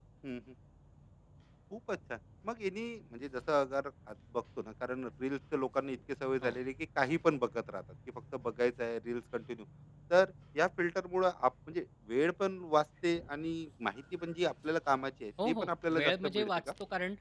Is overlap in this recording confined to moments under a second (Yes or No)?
No